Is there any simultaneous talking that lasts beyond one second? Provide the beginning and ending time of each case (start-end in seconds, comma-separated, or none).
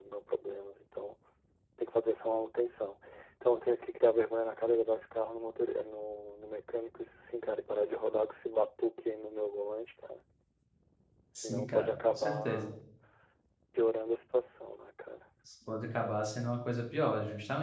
11.4-12.7